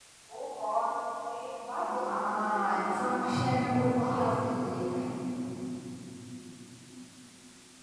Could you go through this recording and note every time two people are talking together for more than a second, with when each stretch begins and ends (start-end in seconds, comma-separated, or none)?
2.0-4.3